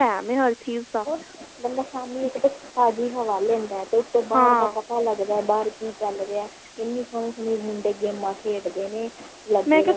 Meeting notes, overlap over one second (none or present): none